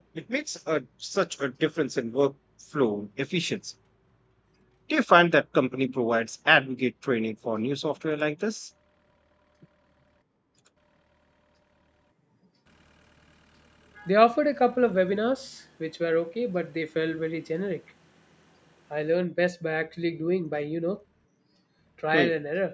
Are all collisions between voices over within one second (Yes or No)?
Yes